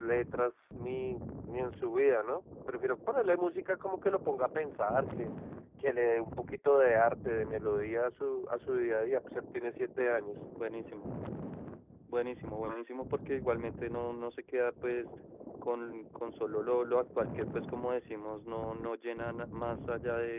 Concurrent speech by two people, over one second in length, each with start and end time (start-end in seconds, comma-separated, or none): none